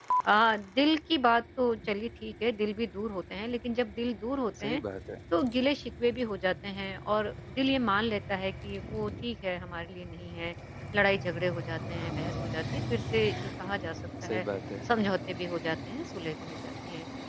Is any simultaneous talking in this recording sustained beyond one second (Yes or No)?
No